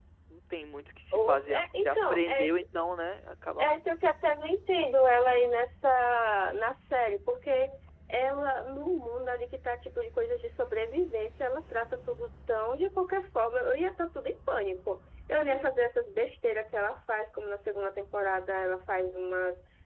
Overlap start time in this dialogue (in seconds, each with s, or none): 1.1 s